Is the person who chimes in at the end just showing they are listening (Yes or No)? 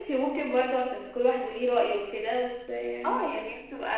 No